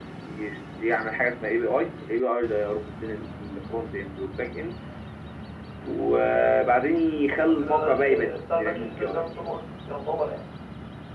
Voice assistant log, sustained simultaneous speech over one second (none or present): present